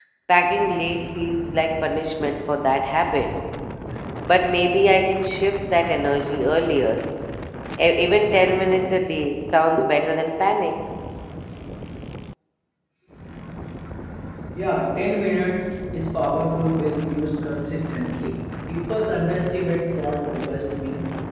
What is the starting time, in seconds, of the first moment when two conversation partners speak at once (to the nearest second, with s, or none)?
none